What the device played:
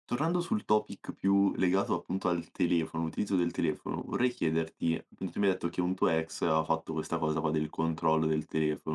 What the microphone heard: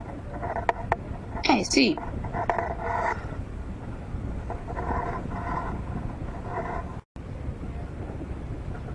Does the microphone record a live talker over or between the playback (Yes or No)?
Yes